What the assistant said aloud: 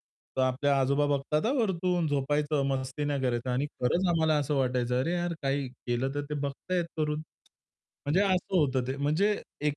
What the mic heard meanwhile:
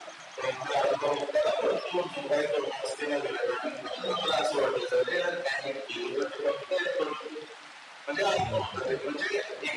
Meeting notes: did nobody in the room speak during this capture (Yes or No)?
No